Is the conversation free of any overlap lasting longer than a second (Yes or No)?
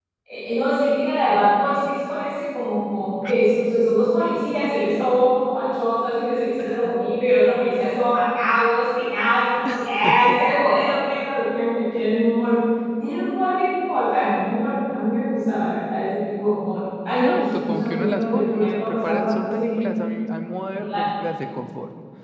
No